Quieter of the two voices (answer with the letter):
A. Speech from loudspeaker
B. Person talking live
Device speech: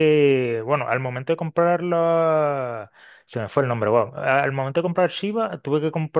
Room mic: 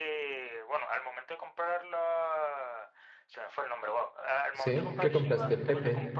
A